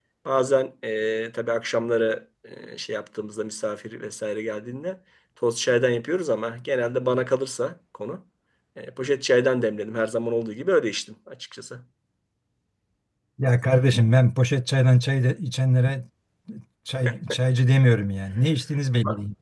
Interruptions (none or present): none